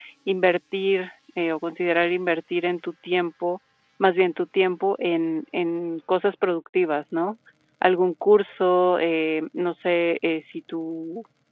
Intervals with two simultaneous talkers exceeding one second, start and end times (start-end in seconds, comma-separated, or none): none